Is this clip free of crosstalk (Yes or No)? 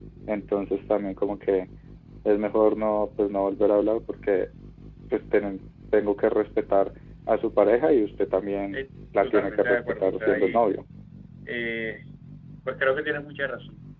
No